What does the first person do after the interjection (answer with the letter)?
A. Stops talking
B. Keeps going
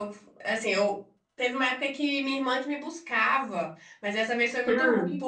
B